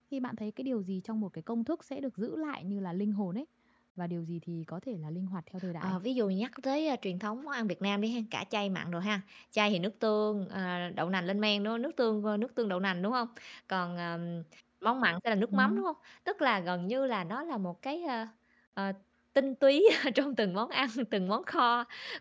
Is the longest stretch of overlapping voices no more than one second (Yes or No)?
Yes